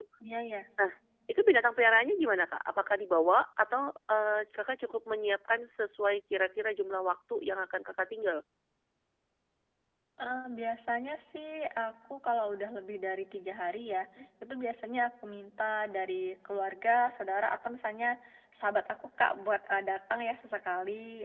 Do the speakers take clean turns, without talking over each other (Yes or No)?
Yes